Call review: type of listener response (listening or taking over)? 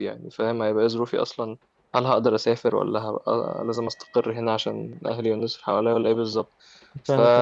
listening